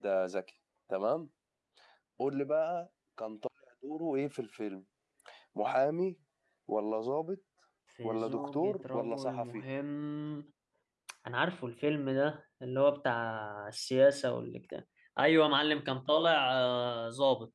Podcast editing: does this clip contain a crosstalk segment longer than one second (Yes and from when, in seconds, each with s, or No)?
Yes, from 8.0 s